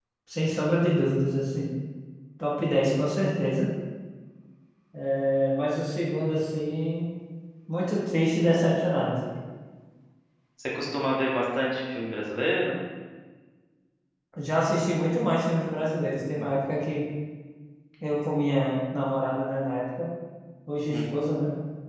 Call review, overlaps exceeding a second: none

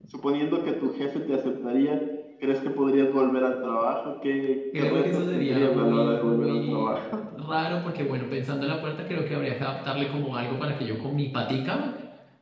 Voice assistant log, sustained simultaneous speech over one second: present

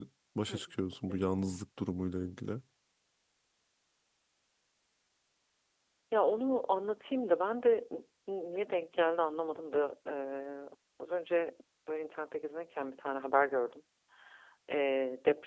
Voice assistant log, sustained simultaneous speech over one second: none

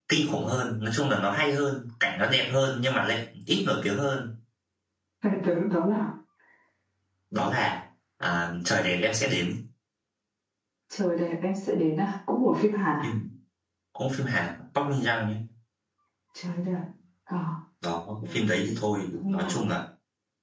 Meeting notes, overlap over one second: none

